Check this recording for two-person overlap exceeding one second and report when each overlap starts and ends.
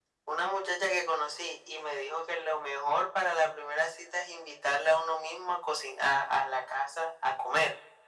none

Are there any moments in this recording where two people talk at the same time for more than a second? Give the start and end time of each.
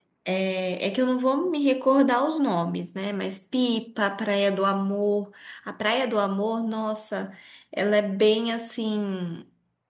none

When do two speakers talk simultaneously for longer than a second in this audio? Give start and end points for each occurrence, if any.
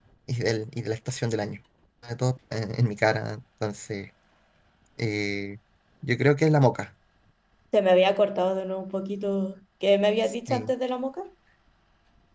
none

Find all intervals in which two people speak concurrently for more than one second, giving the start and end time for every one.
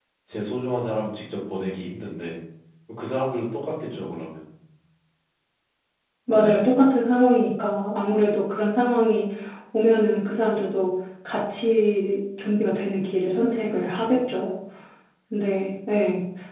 none

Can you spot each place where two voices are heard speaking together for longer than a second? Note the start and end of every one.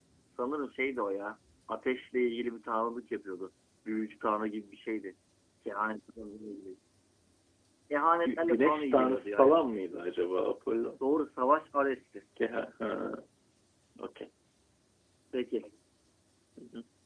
8.2-10.2

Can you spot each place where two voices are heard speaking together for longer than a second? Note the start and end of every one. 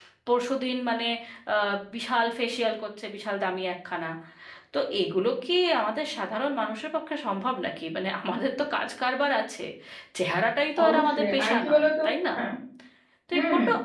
10.8-12.1

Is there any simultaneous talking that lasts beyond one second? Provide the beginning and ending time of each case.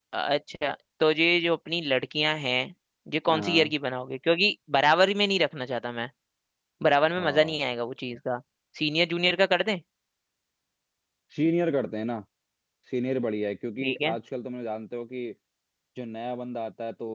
none

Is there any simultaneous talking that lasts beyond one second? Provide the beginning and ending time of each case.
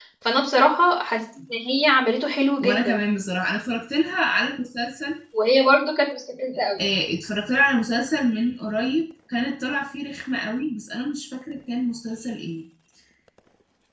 none

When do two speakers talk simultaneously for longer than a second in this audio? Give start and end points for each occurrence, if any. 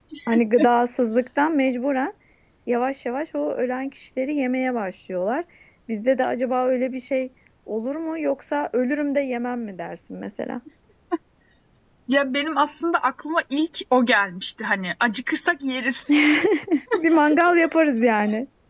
none

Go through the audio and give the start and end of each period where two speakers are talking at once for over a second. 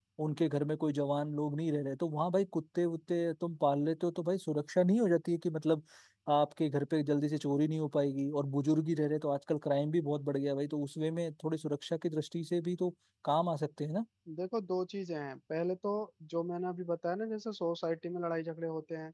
none

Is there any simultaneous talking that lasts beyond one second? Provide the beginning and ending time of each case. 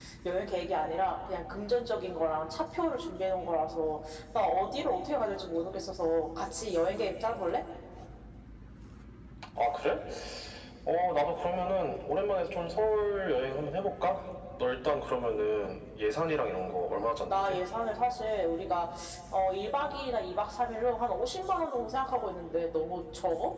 none

